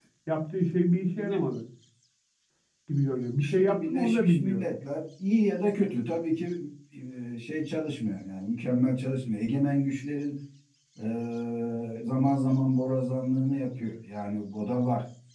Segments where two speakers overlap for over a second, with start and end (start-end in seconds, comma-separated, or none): 3.4-4.7